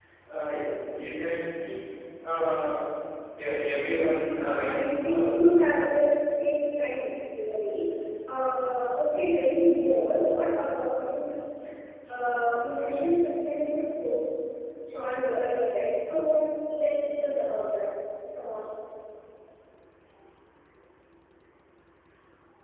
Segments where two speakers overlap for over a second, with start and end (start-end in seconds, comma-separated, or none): 4.0-5.4